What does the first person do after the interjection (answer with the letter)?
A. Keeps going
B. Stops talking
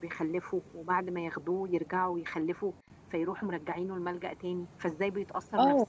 B